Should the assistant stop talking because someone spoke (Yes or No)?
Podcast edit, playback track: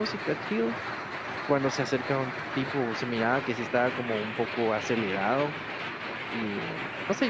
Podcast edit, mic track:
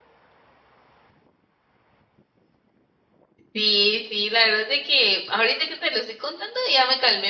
Yes